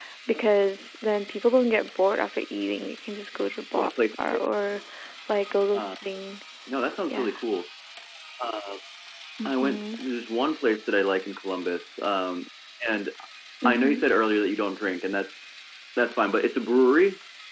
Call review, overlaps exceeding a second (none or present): none